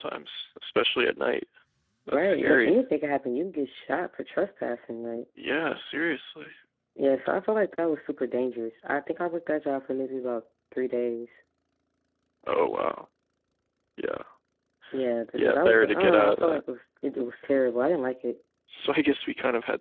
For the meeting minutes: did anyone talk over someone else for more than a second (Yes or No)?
Yes